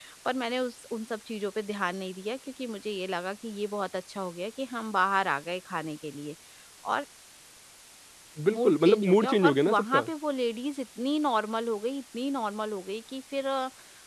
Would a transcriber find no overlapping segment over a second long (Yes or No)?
No